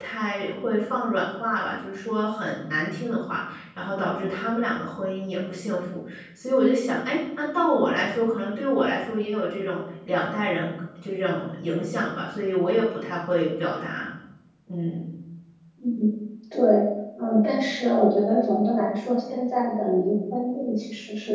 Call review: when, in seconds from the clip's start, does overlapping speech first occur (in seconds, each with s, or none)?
none